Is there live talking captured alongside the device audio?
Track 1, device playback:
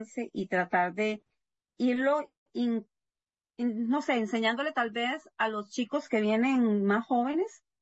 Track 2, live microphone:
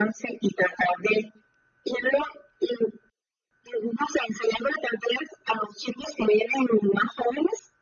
No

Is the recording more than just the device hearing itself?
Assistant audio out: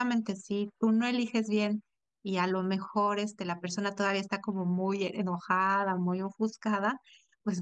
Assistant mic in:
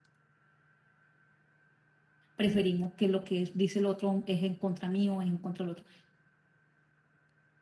Yes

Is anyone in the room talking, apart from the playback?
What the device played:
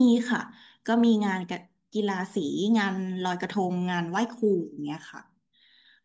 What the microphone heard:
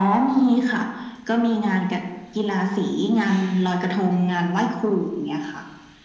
No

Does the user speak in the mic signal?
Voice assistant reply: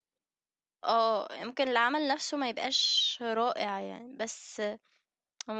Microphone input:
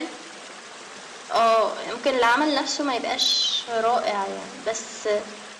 No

